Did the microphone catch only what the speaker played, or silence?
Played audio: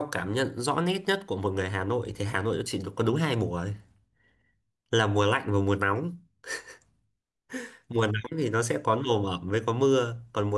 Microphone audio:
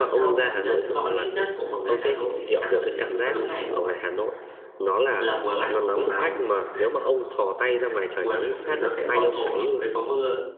No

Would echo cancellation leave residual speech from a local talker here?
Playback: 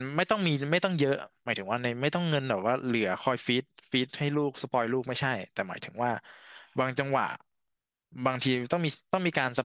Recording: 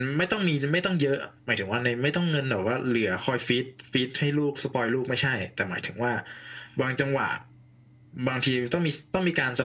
No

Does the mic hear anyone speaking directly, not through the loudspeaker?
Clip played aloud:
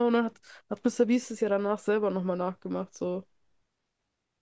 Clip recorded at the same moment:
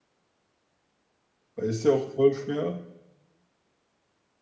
Yes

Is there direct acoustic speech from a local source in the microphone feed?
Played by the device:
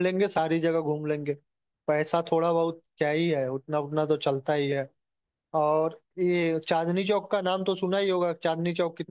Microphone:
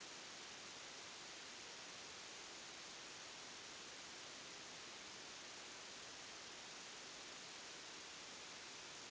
No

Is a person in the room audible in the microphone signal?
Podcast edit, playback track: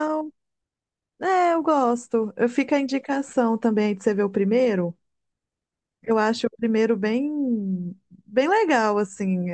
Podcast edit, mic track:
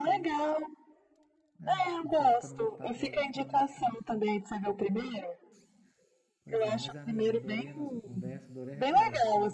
Yes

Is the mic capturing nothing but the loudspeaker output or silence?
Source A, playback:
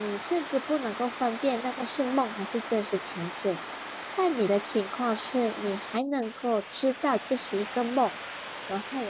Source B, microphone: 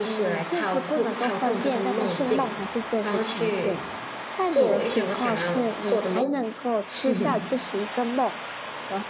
No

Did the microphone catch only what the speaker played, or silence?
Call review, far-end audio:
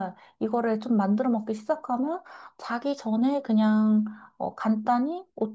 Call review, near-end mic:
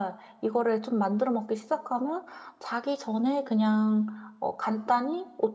Yes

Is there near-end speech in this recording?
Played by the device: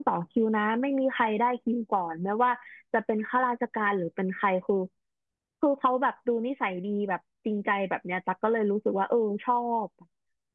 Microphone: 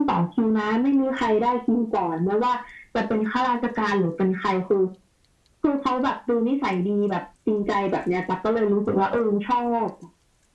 No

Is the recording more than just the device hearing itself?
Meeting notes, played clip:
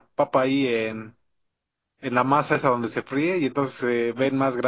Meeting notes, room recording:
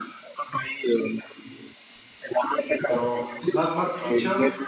Yes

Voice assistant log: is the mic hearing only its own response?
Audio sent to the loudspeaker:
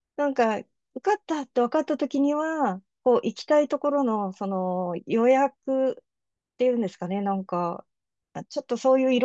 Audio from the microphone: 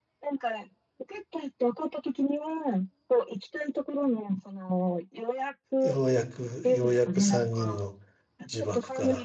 No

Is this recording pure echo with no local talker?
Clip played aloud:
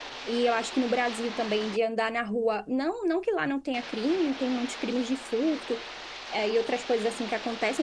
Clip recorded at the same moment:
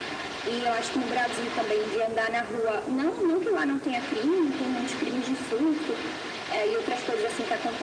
Yes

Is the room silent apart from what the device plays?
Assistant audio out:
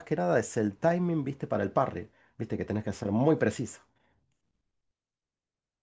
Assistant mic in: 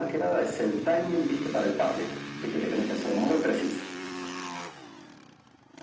Yes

